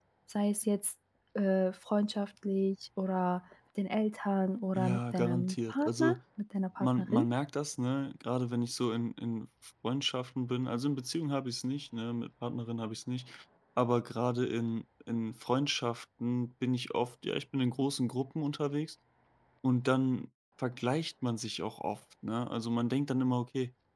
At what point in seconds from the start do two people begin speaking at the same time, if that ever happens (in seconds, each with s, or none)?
4.7 s